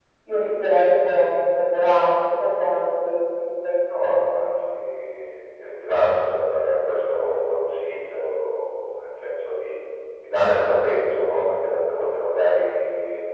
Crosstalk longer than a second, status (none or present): none